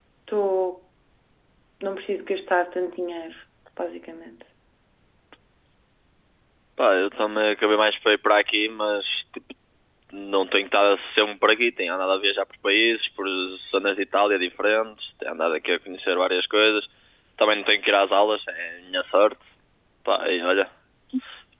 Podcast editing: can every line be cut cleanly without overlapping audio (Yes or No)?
Yes